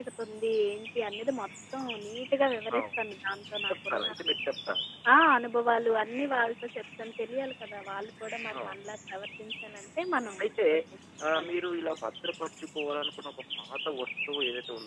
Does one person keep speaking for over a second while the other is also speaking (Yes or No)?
No